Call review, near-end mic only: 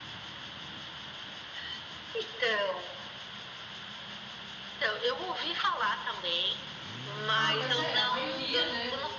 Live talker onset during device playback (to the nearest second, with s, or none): 7 s